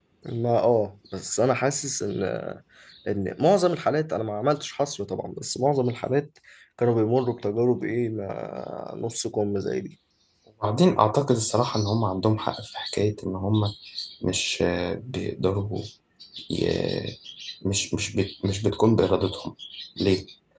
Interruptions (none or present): none